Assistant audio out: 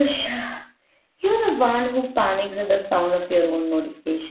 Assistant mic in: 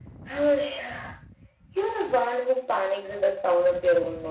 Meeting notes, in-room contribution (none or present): none